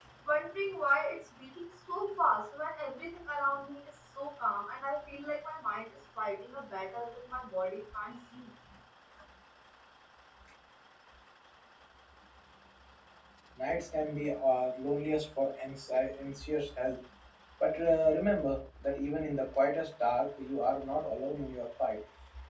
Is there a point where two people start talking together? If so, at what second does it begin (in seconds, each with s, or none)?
none